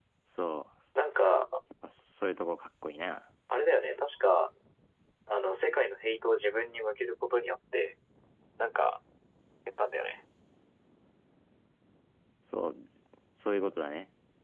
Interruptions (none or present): none